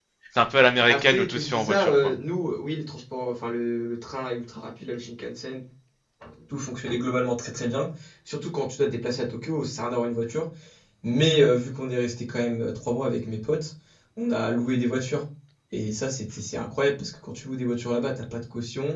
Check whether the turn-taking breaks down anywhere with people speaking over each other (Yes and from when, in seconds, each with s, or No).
Yes, from 0.9 s